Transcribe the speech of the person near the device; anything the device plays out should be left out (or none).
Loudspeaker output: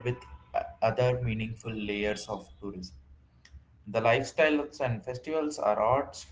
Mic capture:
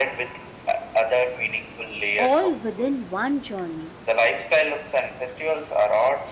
all within one journey.